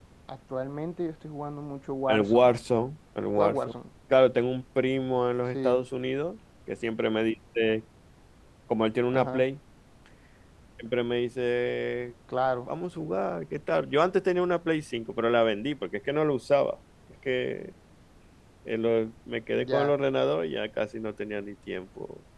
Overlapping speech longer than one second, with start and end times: none

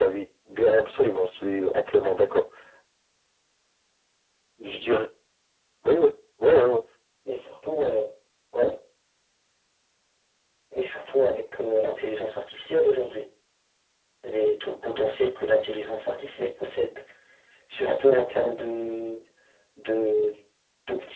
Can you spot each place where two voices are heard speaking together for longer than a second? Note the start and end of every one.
none

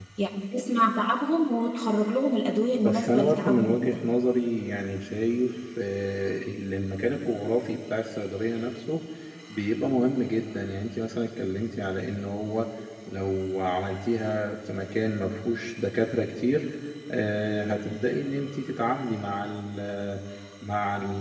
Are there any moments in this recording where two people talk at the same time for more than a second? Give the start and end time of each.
2.7-4.0

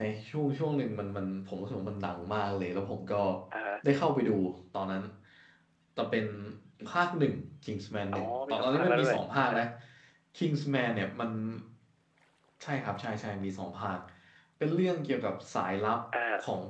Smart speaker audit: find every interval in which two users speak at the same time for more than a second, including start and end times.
8.1-9.6

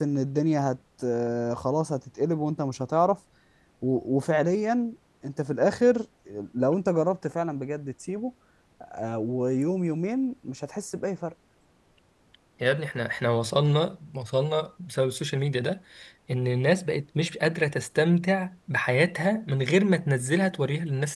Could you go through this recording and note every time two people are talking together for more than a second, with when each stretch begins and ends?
none

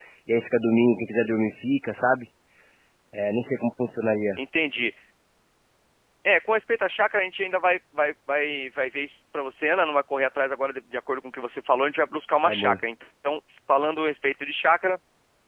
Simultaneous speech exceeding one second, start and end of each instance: none

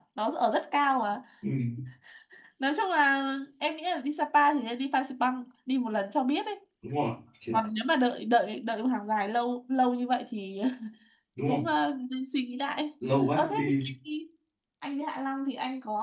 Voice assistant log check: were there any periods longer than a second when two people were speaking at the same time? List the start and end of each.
none

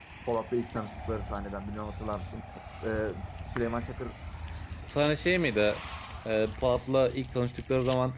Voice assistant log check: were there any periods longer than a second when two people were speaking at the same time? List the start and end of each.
none

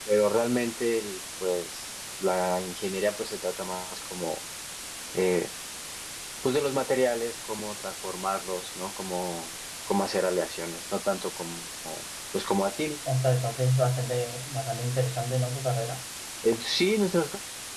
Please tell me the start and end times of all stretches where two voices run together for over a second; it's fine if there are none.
none

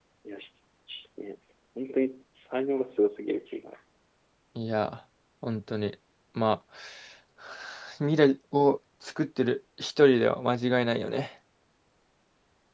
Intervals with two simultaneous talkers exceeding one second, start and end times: none

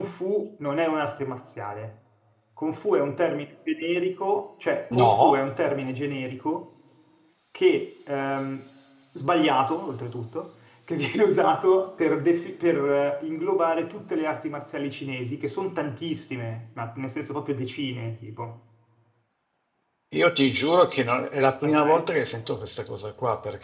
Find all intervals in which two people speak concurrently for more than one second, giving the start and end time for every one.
none

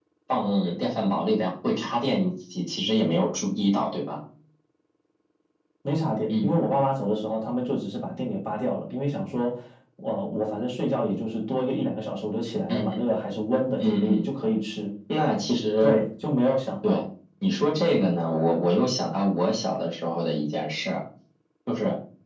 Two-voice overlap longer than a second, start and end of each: none

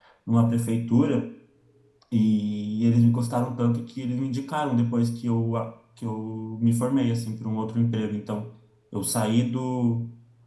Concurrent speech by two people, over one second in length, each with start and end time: none

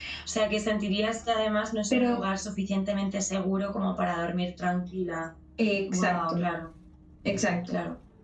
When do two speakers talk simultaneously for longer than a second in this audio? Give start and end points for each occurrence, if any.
none

